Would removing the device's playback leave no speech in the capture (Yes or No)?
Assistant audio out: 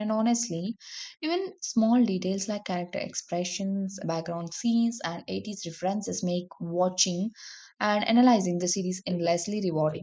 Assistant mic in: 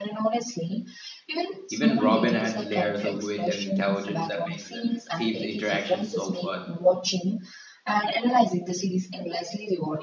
No